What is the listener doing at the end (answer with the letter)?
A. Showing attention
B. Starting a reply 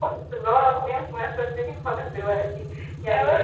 A